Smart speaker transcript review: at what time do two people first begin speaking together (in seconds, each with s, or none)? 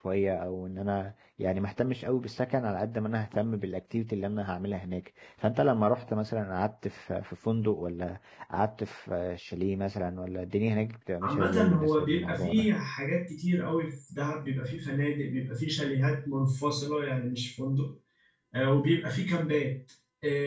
11.2 s